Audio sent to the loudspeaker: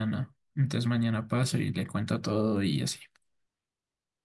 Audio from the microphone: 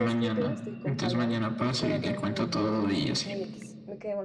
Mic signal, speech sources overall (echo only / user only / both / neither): both